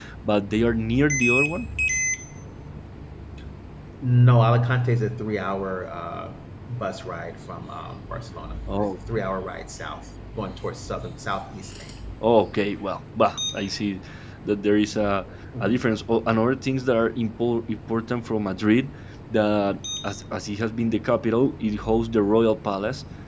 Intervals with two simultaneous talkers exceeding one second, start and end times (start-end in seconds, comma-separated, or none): none